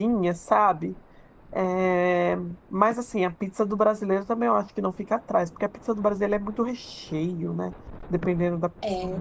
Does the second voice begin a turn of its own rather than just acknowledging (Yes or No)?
Yes